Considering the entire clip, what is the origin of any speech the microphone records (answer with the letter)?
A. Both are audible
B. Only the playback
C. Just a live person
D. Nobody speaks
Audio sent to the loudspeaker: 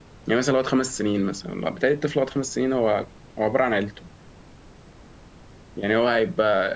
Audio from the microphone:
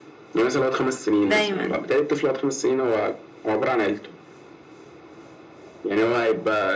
A